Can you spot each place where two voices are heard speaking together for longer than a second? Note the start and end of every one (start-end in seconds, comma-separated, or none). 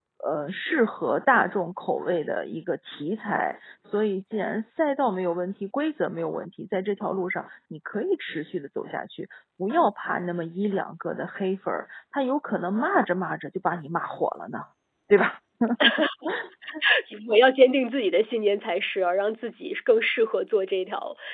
none